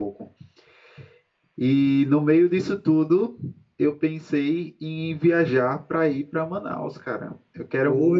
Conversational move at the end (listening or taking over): listening